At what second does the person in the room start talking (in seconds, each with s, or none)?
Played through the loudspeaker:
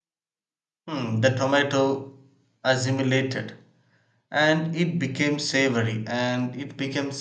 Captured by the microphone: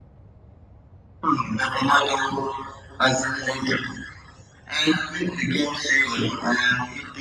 none